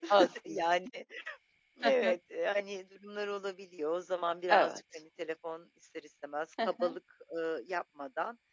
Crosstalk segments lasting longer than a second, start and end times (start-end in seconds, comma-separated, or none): none